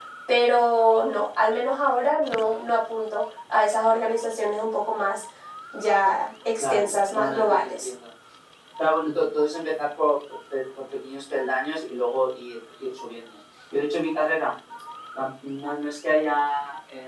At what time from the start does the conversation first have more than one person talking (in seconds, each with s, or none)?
6.6 s